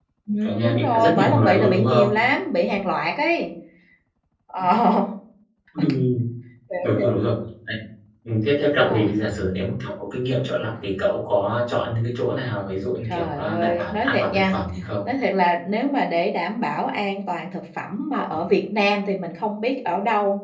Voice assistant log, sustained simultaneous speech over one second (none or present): present